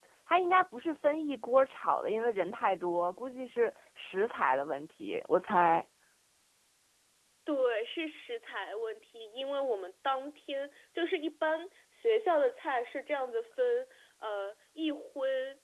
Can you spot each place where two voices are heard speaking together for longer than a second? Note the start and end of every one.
none

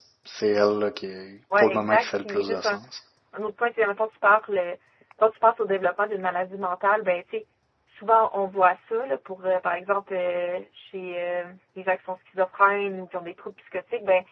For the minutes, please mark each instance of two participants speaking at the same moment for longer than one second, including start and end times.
1.6-2.8

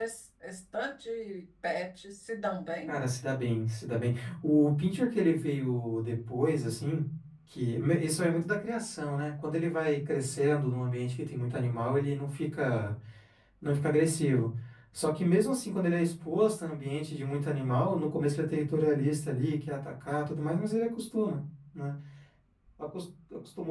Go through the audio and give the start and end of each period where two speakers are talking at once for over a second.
none

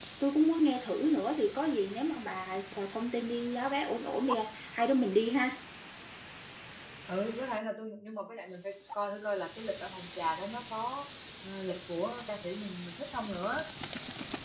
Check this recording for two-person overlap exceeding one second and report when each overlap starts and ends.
none

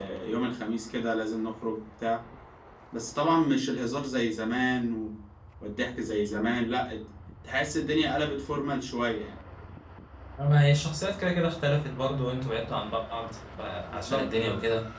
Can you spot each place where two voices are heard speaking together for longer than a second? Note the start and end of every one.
none

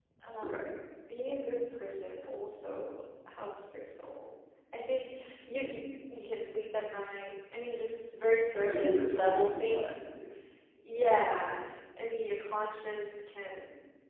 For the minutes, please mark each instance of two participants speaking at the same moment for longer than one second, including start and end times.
8.6-10.0

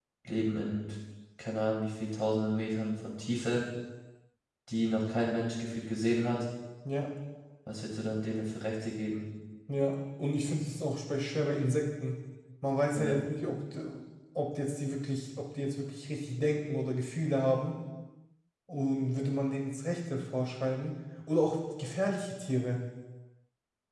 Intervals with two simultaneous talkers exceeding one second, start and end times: none

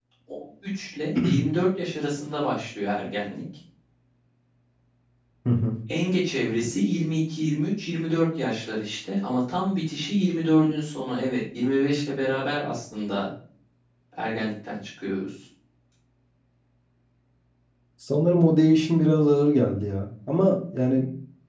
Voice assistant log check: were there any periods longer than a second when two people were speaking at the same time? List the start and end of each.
none

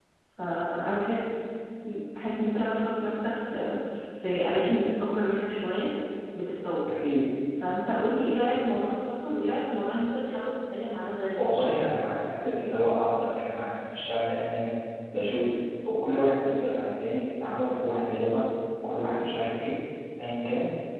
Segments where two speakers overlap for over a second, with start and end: none

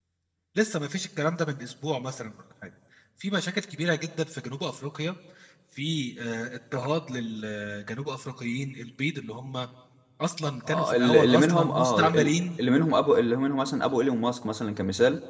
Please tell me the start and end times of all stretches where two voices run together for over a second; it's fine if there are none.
10.7-12.3

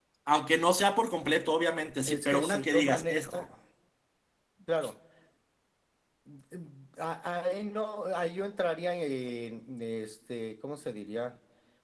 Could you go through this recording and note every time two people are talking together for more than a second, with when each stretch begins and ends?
2.0-3.4

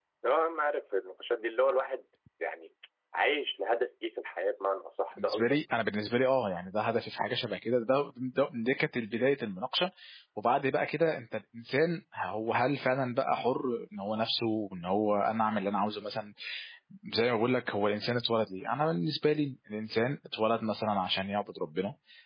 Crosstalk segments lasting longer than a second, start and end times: none

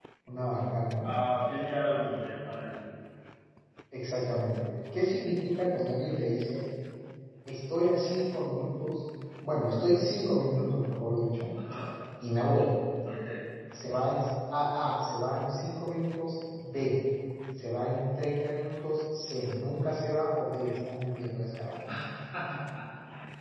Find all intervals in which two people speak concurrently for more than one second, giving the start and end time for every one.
none

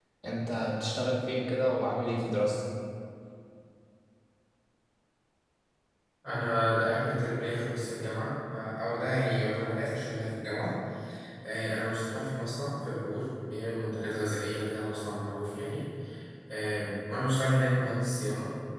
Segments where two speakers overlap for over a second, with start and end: none

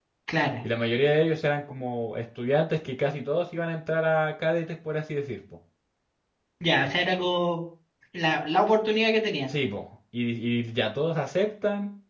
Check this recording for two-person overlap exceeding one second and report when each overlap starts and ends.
none

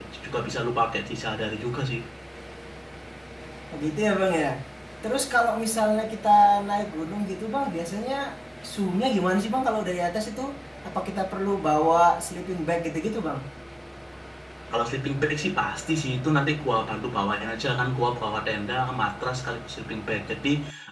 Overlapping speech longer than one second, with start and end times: none

